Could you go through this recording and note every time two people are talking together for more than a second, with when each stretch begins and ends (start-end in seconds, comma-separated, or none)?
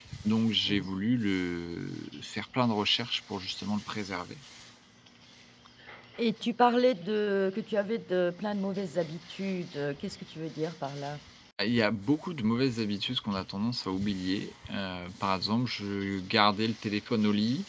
none